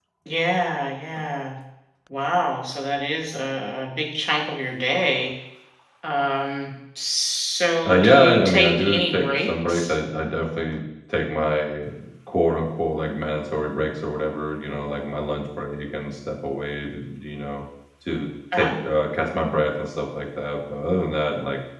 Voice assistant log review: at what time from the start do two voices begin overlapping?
7.8 s

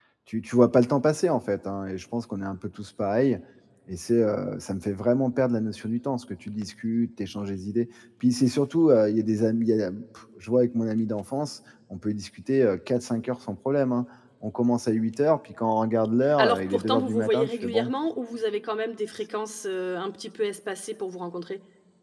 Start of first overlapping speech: 16.3 s

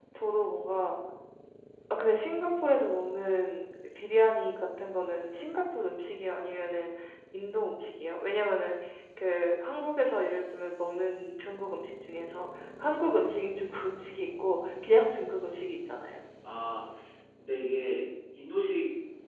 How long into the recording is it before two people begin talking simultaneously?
none

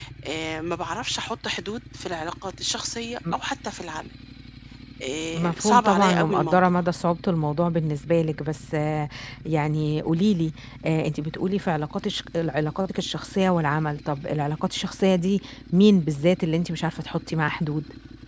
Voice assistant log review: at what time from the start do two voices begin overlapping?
5.4 s

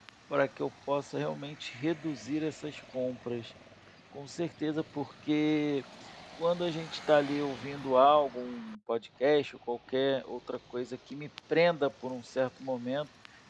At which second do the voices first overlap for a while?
none

